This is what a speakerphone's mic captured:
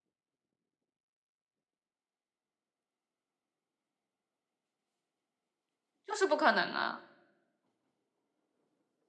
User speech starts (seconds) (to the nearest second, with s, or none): 6 s